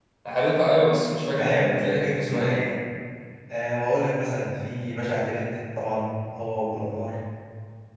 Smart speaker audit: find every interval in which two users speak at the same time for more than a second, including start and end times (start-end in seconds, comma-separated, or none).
1.4-2.6